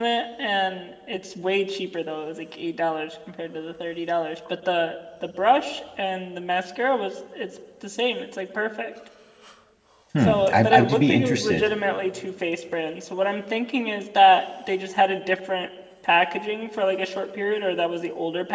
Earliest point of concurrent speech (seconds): 10.2 s

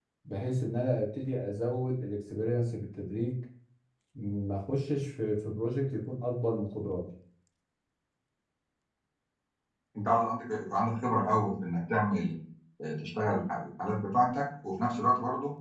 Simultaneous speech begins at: none

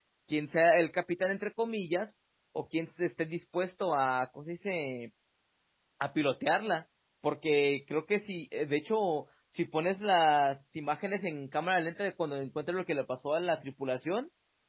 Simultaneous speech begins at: none

